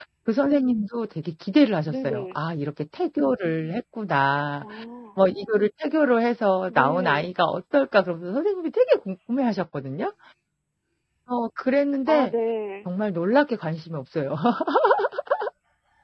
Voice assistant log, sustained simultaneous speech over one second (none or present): none